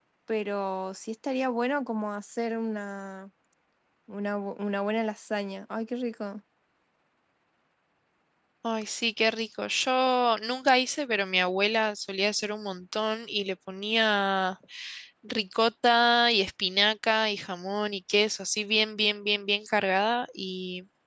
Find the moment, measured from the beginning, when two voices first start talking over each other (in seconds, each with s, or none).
none